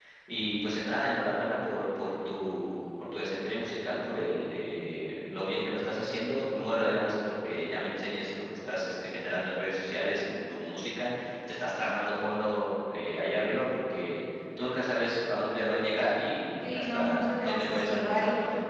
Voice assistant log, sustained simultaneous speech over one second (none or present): present